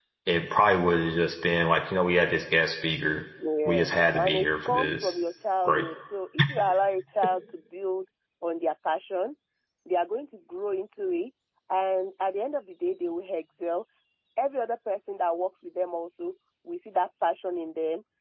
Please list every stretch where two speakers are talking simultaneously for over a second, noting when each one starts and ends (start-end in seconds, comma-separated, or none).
3.6-5.1